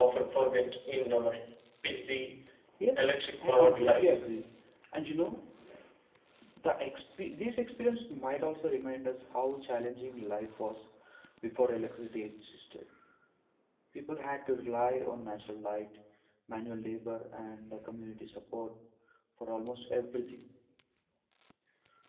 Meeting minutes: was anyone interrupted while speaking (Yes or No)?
Yes